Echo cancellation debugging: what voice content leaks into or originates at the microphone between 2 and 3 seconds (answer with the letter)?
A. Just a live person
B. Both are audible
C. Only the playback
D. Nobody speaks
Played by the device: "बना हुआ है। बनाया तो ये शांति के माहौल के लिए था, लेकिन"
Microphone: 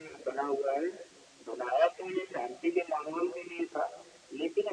C